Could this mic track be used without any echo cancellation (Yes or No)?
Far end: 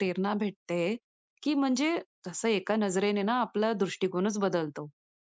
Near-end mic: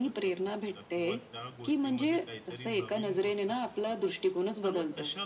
No